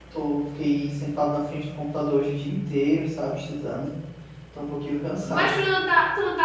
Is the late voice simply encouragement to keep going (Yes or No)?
No